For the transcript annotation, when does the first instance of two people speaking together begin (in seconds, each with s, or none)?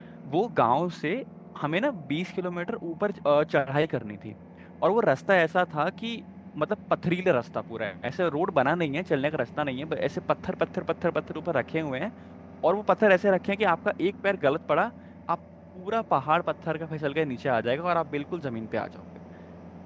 none